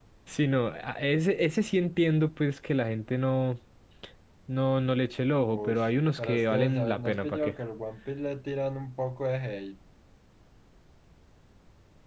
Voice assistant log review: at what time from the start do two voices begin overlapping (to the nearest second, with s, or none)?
5 s